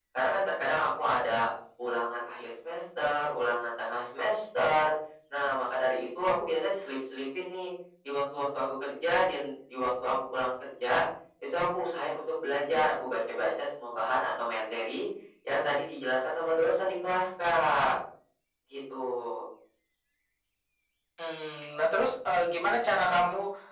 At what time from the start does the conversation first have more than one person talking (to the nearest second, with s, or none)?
none